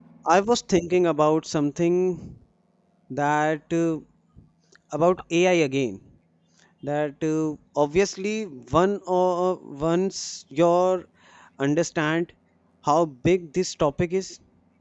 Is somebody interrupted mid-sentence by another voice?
No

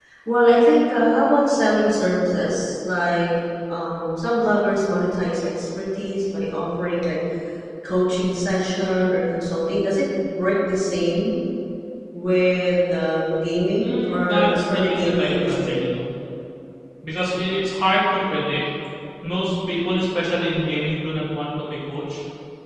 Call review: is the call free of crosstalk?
No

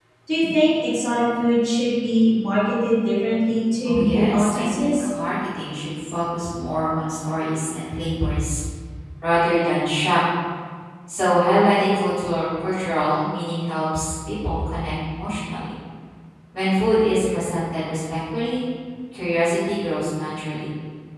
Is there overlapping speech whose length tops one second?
Yes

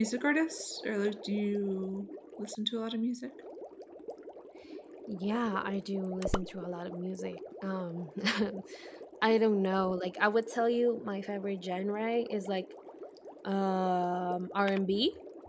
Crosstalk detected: No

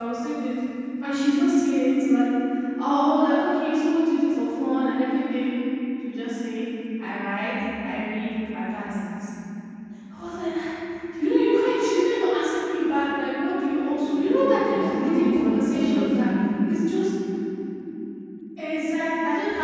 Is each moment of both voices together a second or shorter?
No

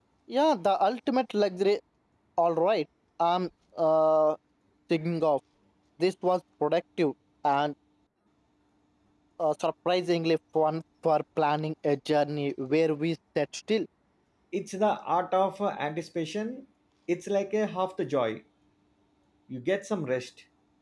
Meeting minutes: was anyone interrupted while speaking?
No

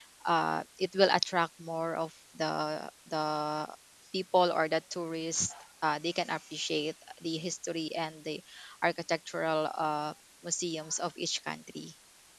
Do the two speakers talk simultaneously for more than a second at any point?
No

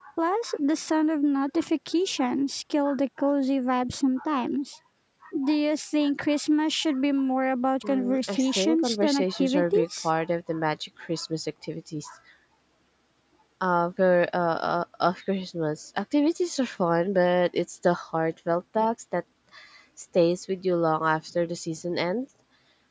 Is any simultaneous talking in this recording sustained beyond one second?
Yes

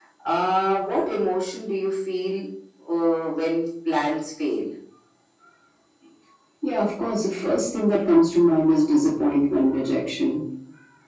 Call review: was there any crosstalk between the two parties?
No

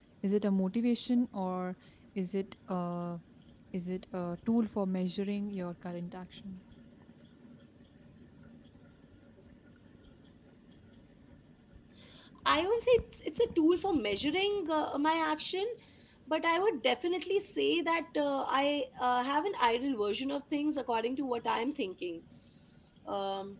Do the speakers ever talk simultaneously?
No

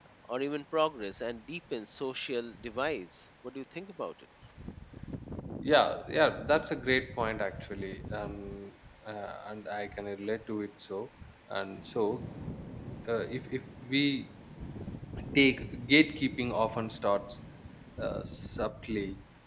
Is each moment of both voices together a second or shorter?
Yes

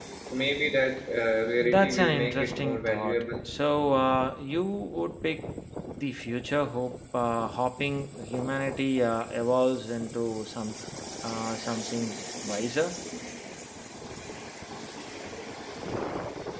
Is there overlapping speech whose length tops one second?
Yes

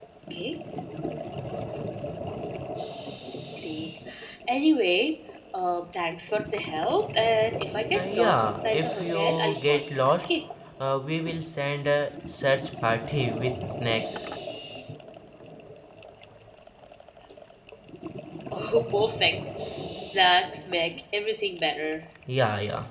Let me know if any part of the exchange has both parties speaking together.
Yes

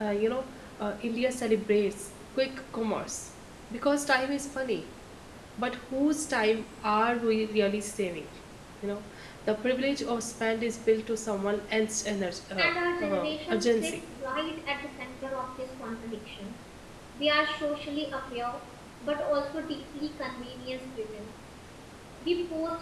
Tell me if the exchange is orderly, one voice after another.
No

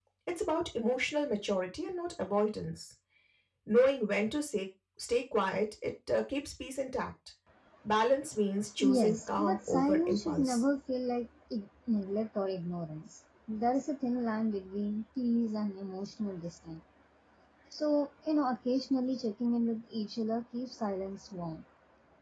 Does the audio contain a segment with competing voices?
Yes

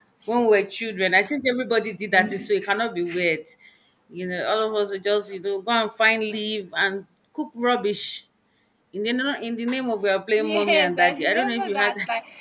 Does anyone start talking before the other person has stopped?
Yes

